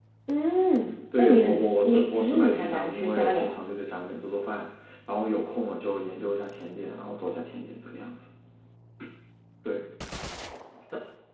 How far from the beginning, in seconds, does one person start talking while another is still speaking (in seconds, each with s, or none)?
1.2 s